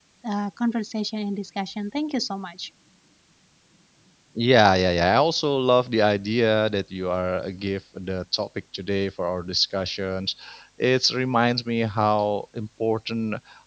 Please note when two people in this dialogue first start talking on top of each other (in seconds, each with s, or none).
none